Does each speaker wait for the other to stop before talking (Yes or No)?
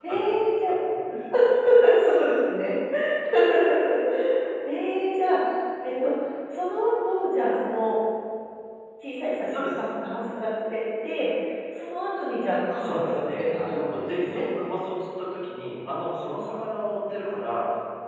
No